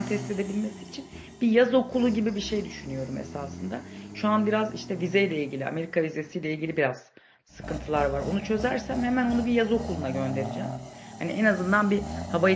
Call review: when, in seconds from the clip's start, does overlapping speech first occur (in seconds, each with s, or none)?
none